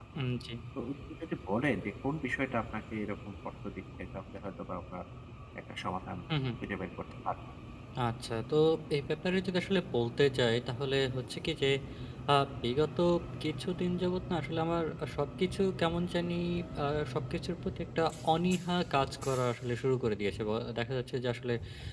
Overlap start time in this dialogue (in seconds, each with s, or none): none